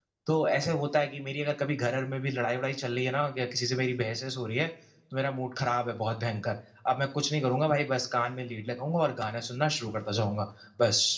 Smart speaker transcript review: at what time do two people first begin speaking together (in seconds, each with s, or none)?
none